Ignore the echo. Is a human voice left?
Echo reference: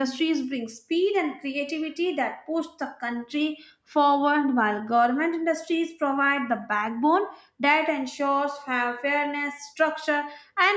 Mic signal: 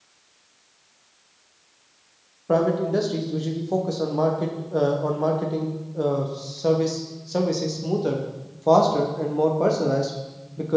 Yes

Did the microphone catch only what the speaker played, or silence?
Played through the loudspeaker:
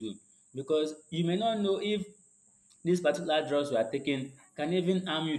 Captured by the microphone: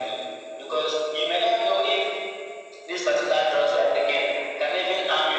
Yes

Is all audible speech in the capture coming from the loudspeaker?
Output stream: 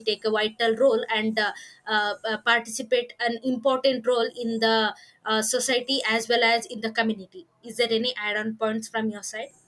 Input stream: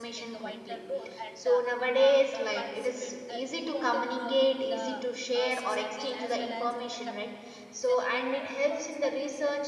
No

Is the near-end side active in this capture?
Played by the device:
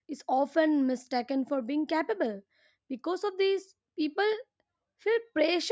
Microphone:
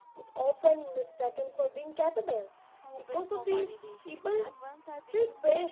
Yes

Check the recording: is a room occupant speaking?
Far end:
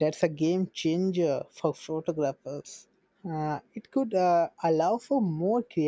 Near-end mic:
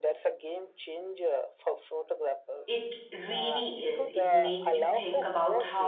Yes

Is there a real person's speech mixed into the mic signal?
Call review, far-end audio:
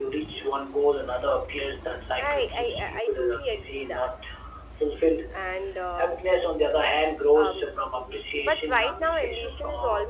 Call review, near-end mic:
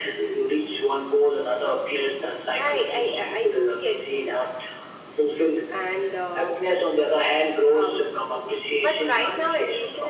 No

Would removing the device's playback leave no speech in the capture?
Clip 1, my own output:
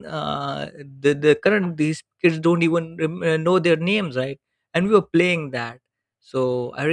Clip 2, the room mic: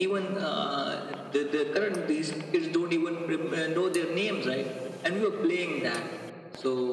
Yes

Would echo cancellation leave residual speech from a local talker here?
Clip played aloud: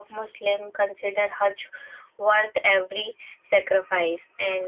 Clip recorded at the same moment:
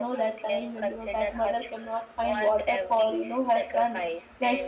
Yes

